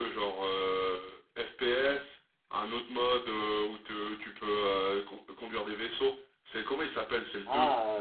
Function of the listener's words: taking over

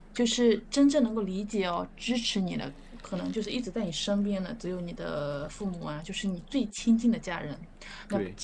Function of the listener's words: listening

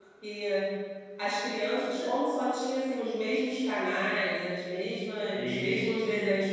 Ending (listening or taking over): listening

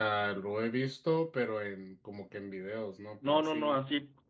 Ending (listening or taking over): taking over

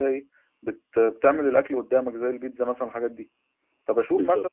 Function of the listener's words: listening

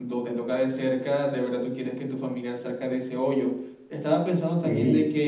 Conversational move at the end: listening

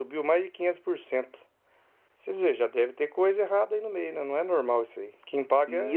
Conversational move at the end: taking over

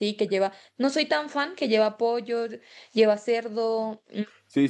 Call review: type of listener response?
taking over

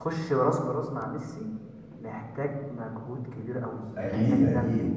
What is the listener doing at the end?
listening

